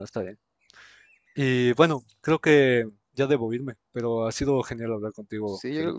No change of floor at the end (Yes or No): No